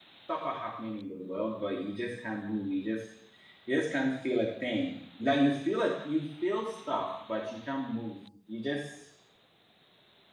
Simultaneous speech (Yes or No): No